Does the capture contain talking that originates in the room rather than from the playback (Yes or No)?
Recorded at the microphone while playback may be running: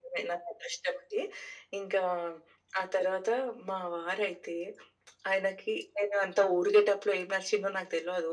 No